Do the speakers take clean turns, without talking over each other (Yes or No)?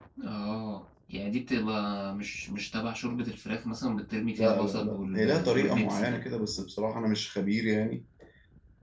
No